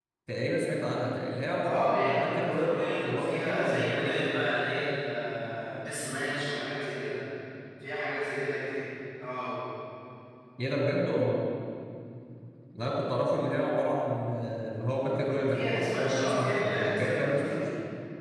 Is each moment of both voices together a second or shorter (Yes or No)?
No